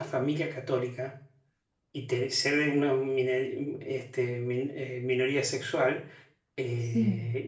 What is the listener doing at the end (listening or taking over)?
listening